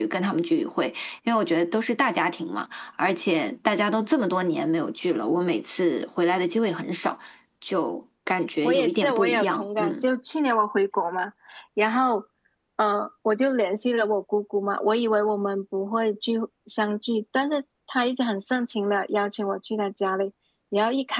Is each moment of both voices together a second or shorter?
No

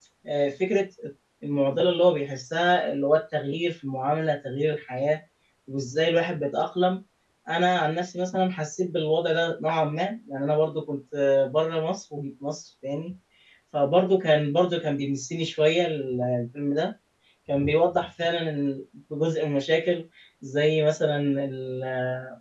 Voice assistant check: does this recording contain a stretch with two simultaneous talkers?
No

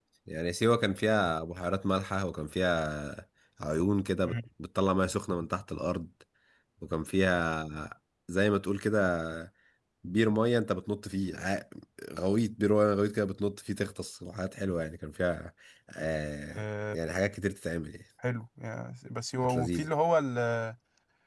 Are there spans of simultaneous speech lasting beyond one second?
No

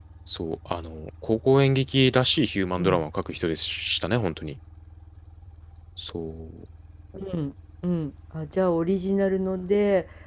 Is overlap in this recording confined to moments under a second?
Yes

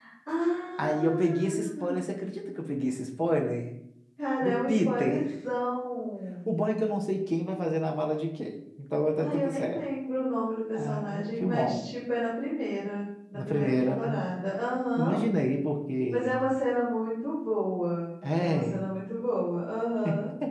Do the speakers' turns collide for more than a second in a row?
Yes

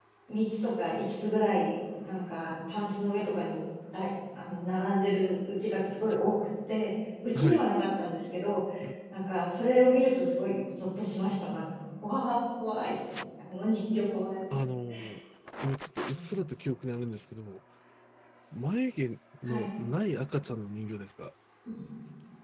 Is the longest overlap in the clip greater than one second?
No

